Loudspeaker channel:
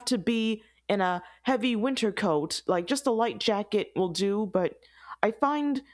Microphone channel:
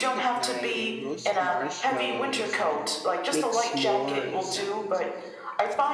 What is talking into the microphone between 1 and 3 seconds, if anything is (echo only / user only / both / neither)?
both